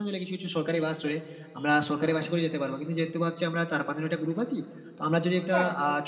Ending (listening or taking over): listening